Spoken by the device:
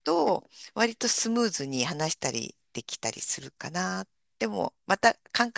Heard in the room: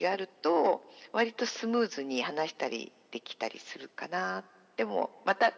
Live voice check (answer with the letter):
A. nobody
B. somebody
A